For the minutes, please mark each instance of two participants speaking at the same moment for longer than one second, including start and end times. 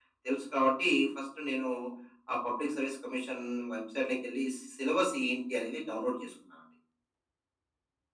none

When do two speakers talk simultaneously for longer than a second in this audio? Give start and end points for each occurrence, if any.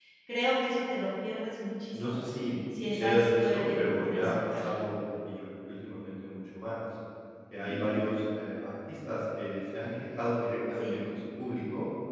2.9-4.6

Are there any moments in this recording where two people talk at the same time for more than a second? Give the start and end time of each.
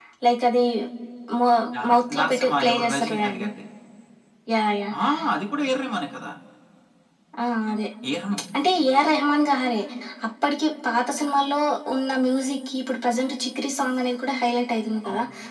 1.9-3.5

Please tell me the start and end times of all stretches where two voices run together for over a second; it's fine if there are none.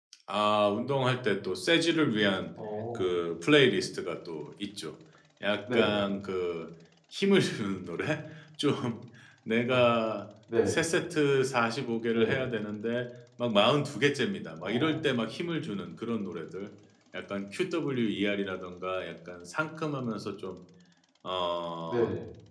none

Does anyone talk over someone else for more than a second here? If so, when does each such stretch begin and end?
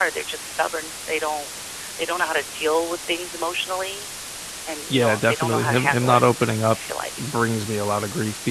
4.9-6.2

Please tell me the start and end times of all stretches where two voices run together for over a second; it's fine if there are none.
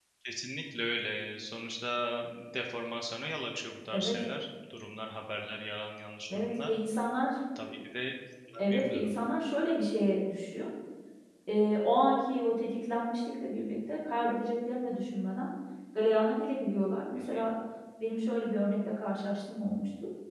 none

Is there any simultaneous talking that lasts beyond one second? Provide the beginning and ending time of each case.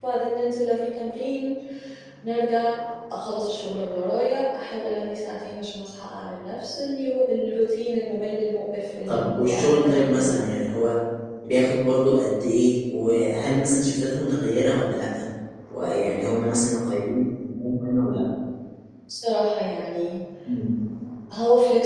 9.1-10.5

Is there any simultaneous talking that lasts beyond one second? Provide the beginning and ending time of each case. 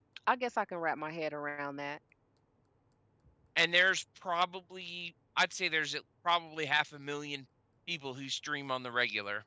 none

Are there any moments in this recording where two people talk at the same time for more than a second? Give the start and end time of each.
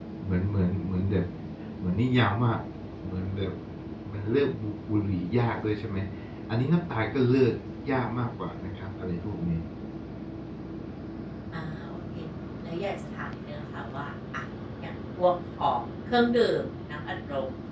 none

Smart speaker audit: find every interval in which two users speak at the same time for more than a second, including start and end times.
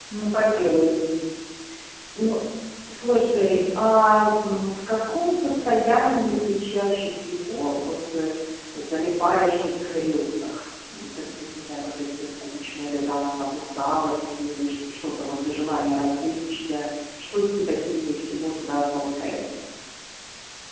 none

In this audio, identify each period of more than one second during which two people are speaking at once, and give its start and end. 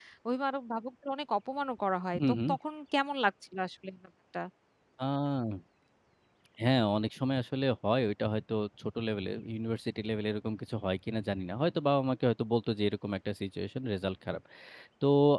none

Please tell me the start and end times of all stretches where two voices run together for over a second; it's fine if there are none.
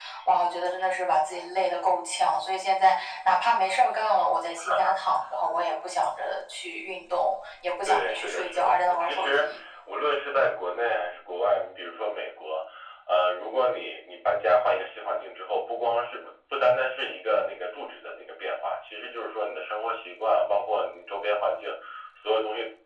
7.8-9.5

